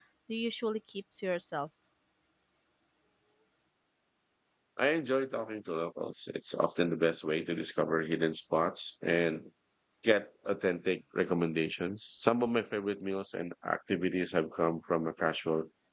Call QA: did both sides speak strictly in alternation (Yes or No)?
Yes